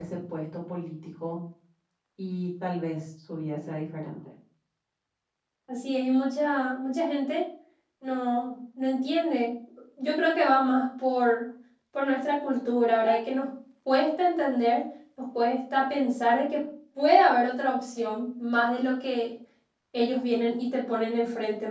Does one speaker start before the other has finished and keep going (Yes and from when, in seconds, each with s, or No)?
No